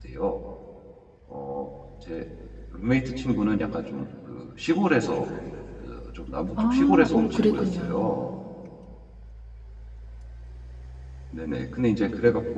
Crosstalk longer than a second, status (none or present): present